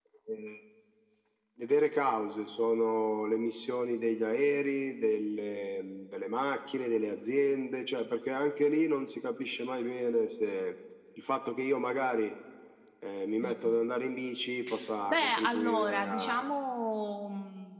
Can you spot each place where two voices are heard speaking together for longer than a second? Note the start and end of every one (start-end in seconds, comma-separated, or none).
15.1-16.5